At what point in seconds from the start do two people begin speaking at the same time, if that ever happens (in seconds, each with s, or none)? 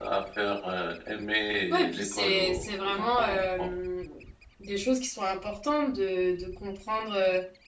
1.7 s